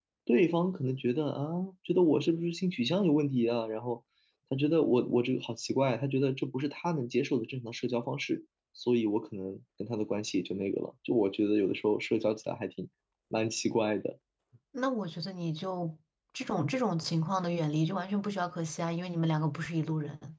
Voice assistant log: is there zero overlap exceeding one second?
Yes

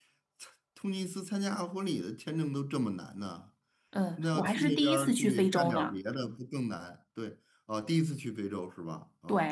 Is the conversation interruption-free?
No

